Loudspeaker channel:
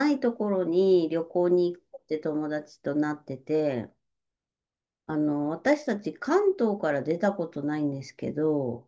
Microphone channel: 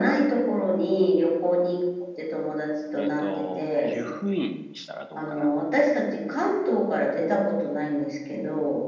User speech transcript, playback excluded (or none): えっと、湯布院にしたらどうかな。